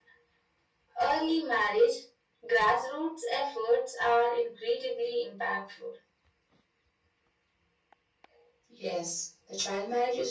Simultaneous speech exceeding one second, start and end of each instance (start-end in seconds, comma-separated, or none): none